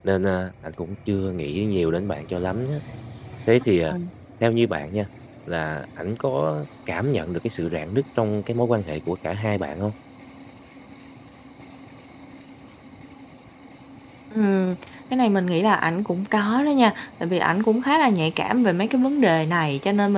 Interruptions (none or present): none